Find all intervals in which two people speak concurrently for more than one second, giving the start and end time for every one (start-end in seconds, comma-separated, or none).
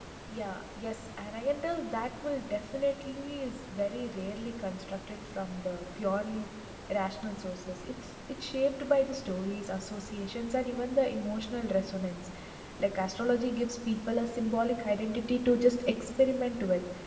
none